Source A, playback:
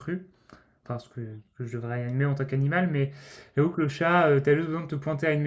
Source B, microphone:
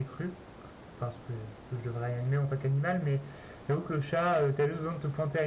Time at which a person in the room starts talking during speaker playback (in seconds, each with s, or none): none